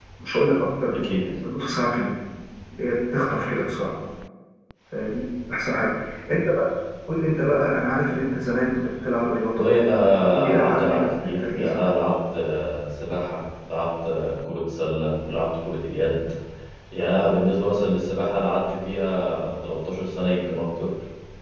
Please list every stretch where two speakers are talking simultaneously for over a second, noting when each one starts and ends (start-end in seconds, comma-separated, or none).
9.6-11.9